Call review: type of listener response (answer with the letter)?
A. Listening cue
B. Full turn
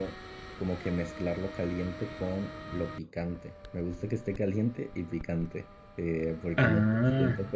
A